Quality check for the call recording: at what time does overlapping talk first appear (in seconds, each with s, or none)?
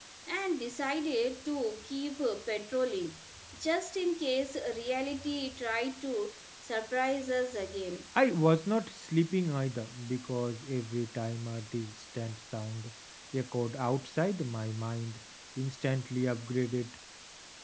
none